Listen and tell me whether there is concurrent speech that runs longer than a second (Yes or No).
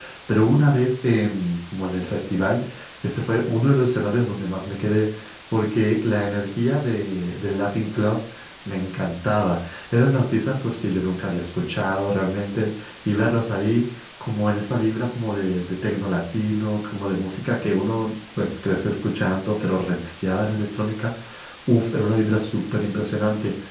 No